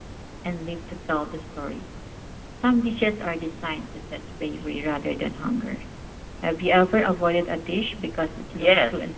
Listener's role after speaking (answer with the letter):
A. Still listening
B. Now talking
B